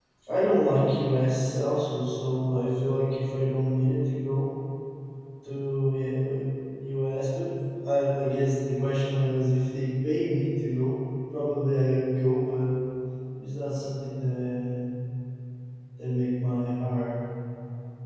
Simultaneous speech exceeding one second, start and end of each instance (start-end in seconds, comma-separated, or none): none